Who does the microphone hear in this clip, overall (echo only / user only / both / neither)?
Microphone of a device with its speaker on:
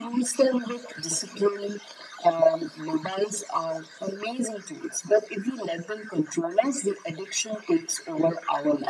echo only